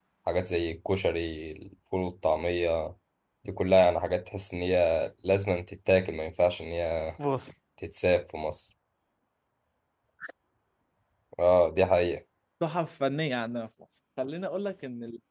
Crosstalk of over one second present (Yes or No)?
No